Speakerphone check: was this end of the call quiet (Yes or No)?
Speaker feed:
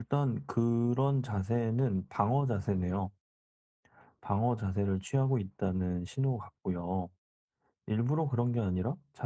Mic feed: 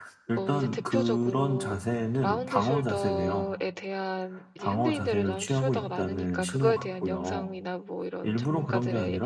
No